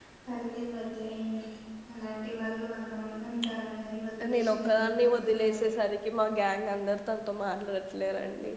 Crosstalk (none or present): present